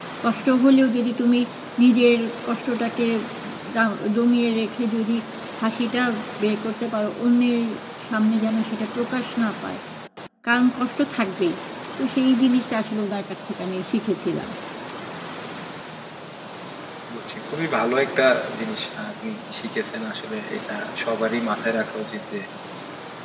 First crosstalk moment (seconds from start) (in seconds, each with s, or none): none